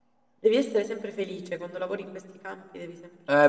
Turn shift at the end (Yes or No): Yes